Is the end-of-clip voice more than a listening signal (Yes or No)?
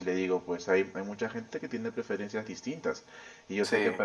No